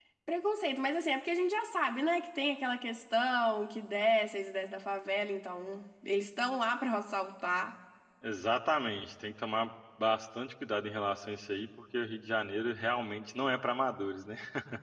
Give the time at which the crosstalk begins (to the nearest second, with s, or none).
none